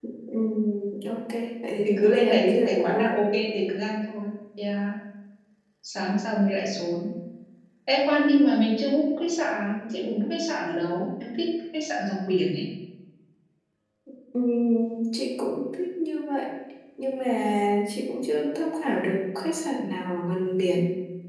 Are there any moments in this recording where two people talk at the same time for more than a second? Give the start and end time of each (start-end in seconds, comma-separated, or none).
1.8-3.1